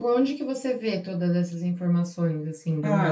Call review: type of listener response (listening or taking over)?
taking over